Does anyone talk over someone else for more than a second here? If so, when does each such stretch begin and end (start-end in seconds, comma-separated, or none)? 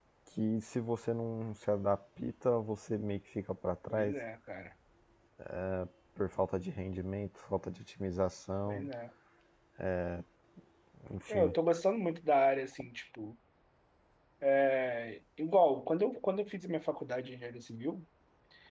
none